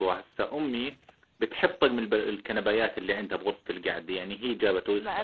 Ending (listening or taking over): taking over